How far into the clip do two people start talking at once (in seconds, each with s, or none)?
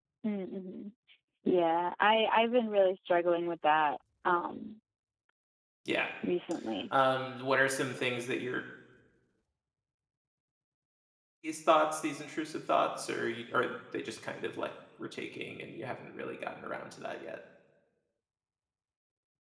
none